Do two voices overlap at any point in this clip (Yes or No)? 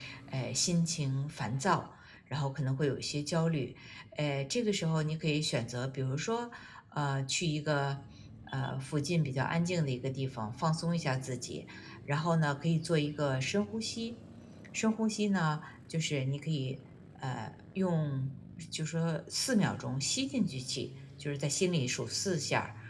No